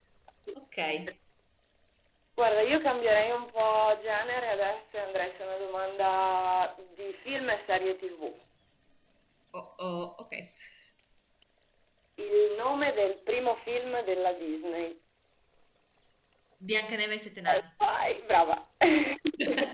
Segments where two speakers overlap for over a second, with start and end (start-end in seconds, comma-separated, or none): none